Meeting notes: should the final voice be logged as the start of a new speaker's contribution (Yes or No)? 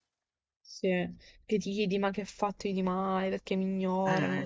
Yes